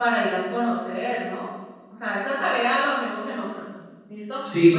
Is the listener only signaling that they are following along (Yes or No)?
Yes